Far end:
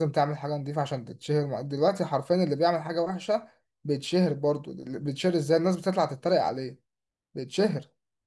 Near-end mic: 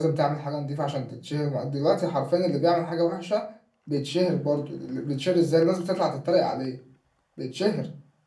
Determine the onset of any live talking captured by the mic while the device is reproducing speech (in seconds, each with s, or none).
none